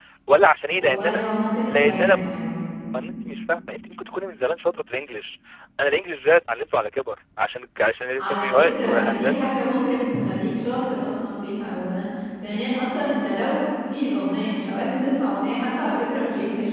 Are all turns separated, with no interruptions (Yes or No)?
No